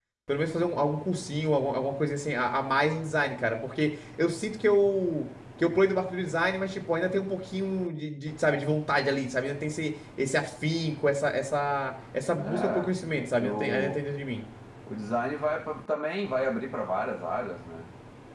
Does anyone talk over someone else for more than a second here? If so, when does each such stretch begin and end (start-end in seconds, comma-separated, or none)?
12.4-14.0